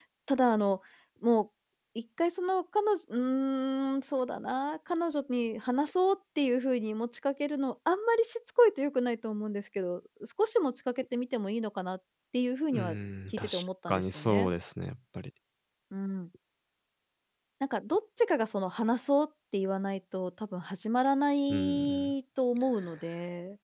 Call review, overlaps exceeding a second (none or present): present